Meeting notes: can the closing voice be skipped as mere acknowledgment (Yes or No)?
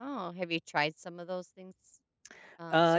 No